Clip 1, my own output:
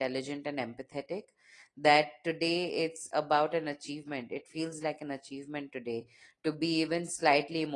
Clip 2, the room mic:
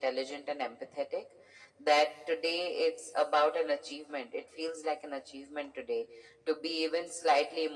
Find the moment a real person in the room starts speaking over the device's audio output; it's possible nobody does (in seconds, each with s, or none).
none